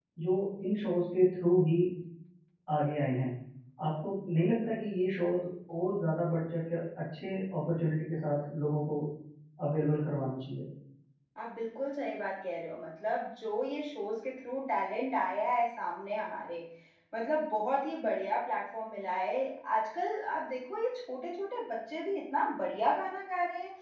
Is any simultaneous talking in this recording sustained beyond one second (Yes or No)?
No